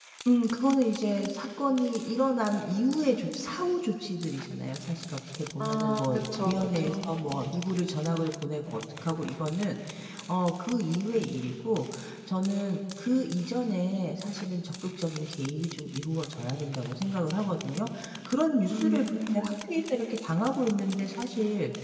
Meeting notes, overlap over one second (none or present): present